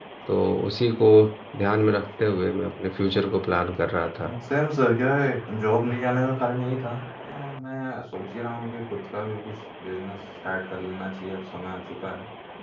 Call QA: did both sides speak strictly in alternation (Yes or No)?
Yes